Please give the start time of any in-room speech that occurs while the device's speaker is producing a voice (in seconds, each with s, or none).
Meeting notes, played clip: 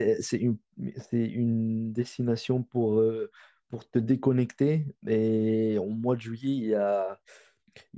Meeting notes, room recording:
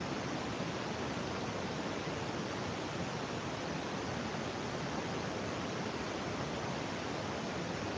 none